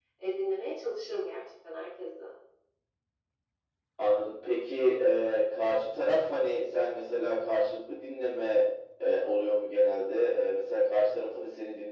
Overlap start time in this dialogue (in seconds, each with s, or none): none